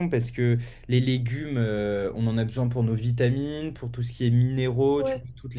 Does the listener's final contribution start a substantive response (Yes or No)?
No